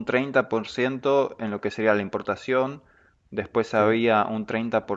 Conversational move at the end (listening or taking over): listening